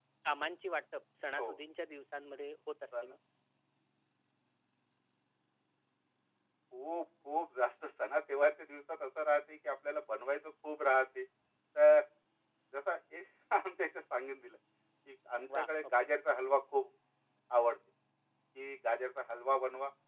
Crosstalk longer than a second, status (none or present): none